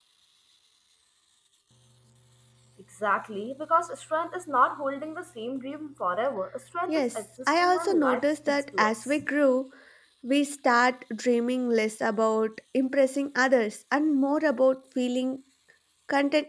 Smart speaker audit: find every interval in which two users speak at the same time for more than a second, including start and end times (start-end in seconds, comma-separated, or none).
6.9-9.2